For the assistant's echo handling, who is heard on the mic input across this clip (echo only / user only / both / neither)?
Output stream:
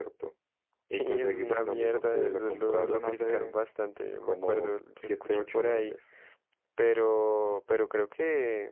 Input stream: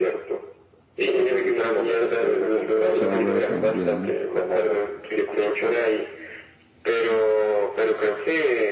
both